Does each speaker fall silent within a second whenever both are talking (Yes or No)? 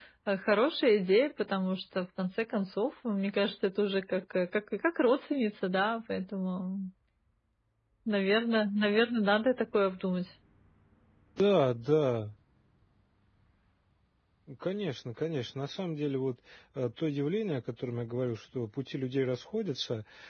Yes